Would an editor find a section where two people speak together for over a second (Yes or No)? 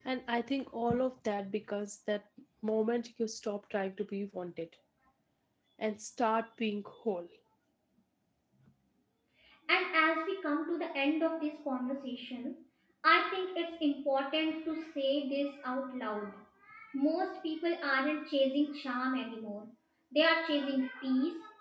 No